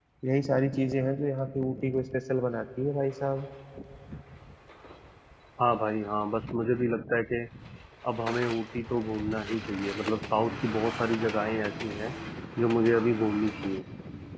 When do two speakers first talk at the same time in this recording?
none

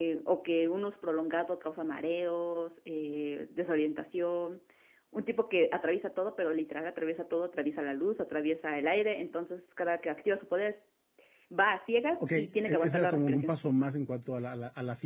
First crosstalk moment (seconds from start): 12.2 s

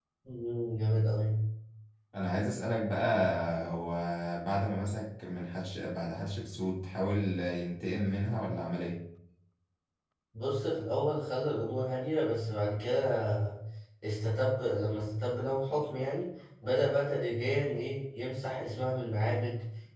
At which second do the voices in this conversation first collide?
none

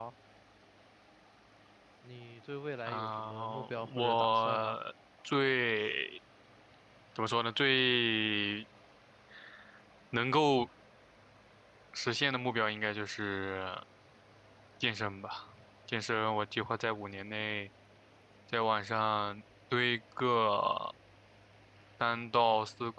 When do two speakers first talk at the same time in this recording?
2.9 s

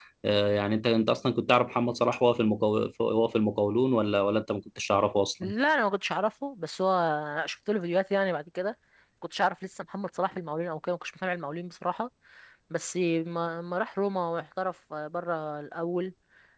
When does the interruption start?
none

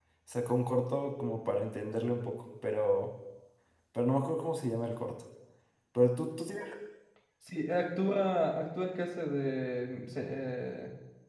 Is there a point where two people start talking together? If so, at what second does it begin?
none

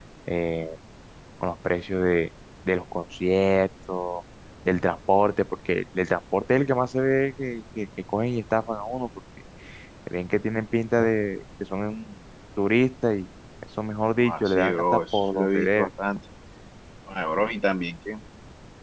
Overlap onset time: 14.2 s

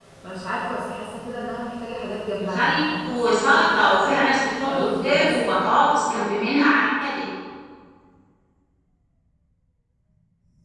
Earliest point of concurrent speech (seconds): 2.4 s

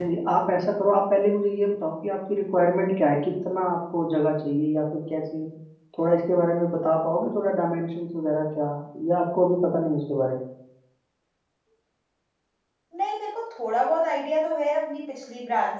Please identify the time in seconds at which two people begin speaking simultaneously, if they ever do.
none

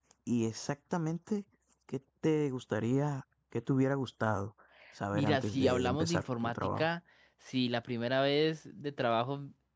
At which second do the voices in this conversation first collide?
5.1 s

